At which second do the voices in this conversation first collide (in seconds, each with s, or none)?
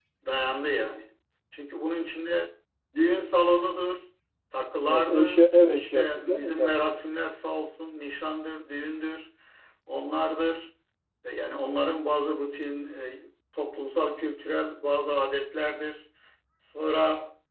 4.8 s